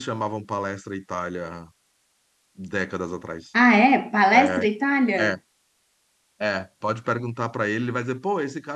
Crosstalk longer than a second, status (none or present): none